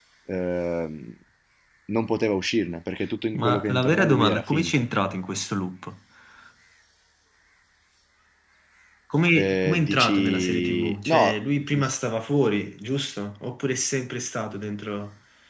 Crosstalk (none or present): present